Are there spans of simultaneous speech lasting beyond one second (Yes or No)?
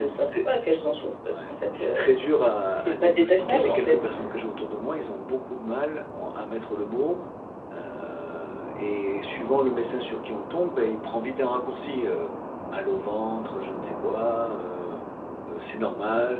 Yes